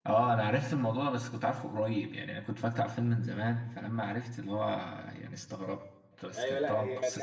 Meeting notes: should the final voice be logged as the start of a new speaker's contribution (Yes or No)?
Yes